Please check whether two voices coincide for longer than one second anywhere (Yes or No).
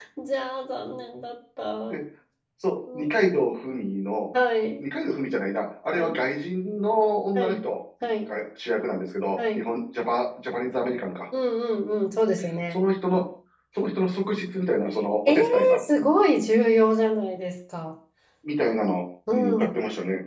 No